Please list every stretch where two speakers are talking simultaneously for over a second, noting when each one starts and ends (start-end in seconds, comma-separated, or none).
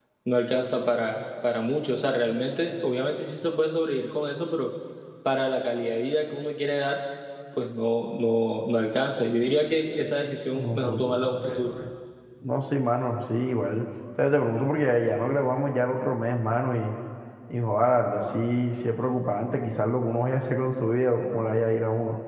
10.5-11.7